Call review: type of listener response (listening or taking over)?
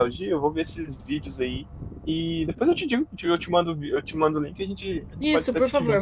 taking over